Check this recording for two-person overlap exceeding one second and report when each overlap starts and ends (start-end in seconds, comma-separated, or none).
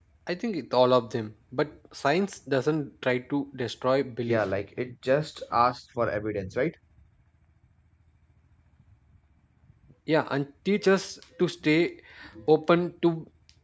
none